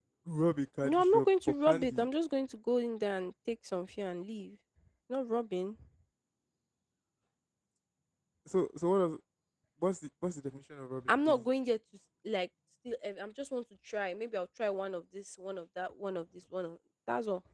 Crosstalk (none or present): present